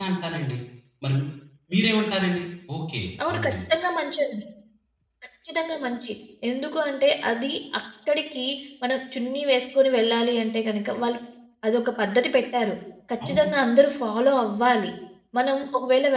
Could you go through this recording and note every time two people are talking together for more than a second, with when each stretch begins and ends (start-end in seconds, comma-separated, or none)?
none